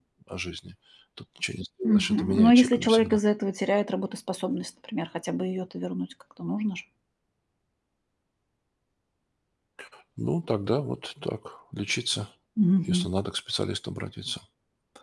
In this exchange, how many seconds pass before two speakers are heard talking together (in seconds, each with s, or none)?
1.8 s